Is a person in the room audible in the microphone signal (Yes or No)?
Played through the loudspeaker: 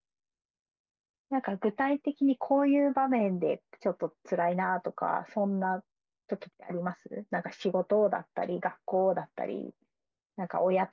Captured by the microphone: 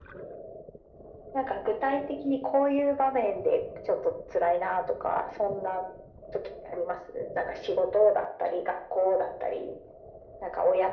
No